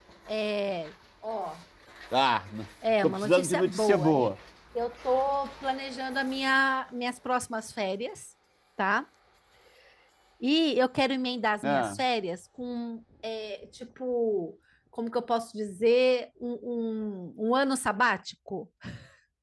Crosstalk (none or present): present